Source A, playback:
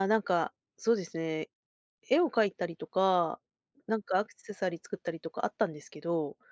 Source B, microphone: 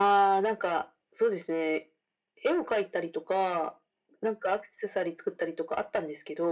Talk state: echo only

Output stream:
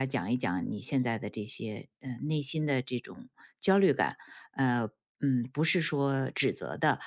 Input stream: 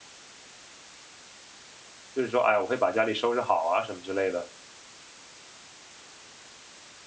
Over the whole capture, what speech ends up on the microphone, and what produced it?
user only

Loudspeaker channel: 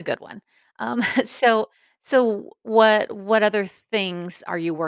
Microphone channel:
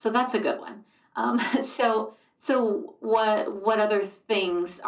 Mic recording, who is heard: echo only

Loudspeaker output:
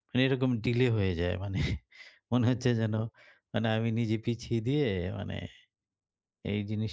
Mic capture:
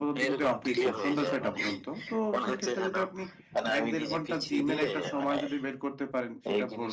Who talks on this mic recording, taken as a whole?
both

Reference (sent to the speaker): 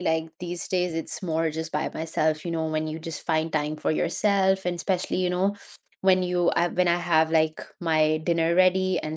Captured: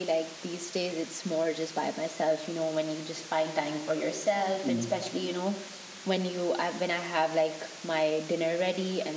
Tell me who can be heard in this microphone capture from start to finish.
both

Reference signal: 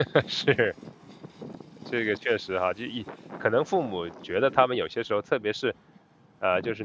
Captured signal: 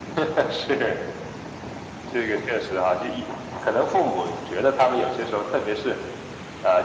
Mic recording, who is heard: echo only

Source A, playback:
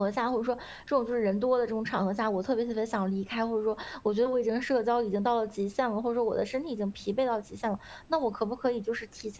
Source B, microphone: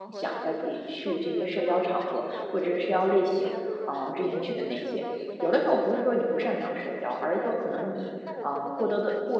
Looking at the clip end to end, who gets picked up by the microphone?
both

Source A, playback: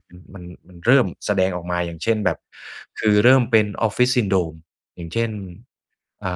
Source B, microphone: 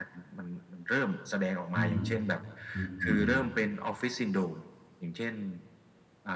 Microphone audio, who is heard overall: both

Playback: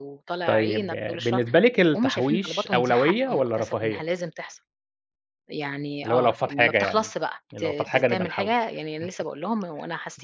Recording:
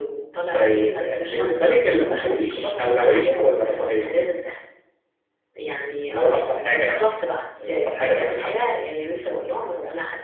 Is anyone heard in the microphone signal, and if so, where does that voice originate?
echo only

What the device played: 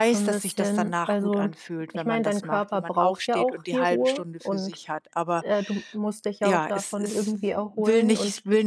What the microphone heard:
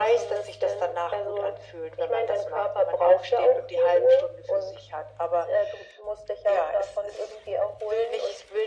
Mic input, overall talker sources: echo only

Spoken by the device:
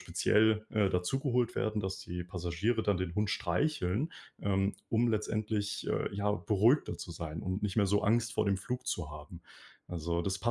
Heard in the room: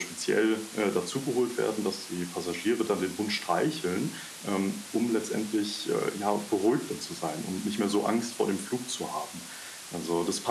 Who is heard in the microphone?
echo only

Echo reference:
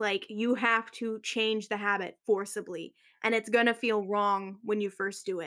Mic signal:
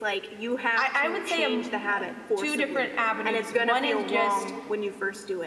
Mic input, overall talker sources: both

